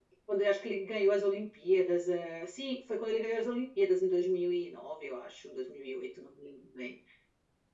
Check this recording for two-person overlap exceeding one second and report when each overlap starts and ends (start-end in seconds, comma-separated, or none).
none